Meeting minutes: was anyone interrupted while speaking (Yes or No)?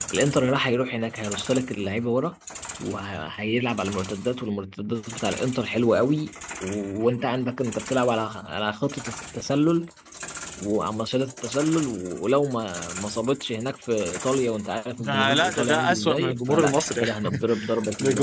Yes